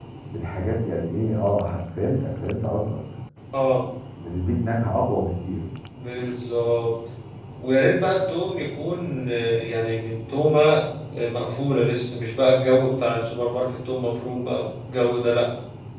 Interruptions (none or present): none